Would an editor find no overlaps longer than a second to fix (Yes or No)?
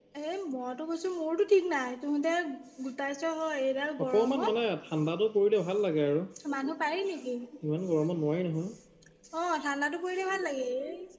Yes